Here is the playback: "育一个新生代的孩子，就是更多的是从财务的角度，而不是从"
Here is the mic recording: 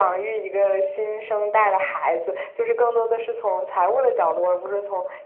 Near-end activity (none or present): none